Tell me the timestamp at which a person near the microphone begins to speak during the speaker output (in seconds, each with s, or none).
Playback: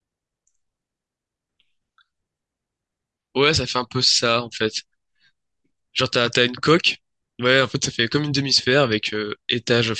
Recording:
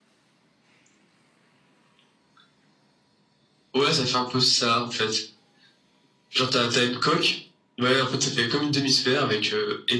none